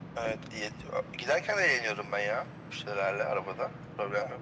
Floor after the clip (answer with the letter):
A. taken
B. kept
A